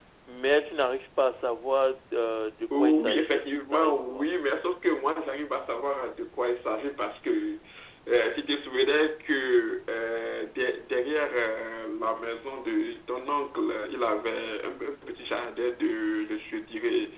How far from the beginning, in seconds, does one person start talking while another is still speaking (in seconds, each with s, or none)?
2.7 s